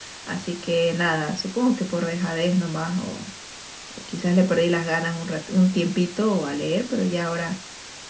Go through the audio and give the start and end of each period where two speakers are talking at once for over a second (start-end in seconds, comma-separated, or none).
none